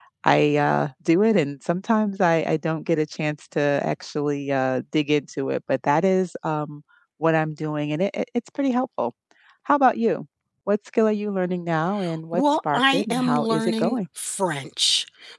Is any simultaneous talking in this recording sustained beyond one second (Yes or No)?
Yes